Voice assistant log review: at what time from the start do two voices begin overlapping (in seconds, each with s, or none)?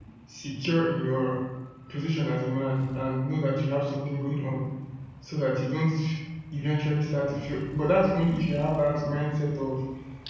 none